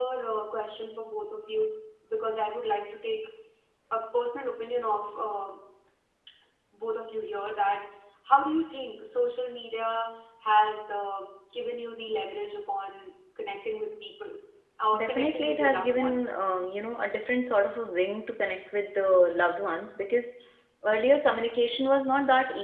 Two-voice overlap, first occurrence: 14.9 s

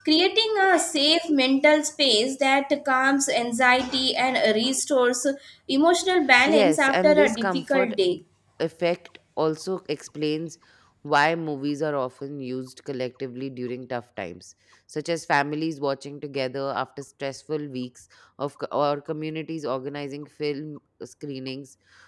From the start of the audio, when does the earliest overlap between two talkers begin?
6.4 s

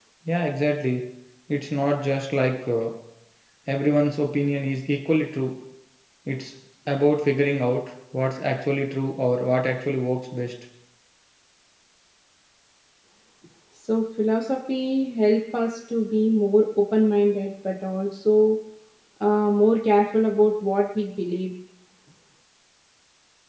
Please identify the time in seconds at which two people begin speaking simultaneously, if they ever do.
none

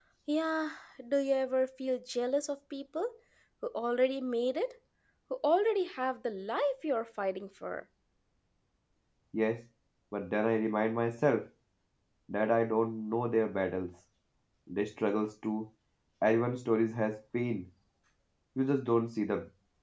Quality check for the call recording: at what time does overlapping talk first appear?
none

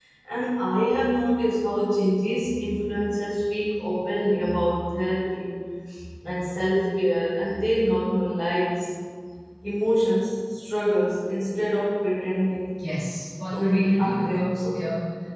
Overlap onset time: 13.5 s

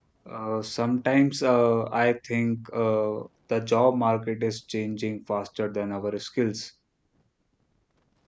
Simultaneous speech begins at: none

